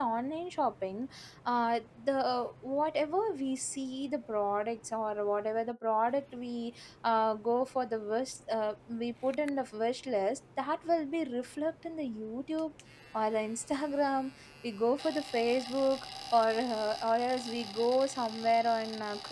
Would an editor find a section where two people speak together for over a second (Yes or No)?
No